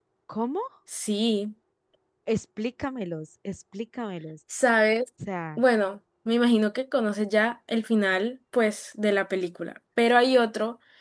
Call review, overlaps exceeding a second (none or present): none